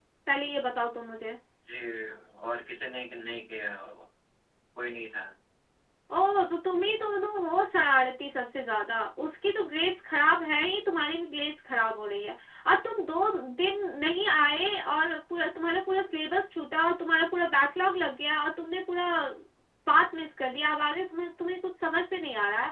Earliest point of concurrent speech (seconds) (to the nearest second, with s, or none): none